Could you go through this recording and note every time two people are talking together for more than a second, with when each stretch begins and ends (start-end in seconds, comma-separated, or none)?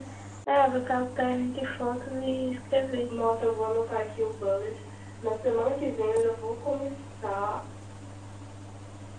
none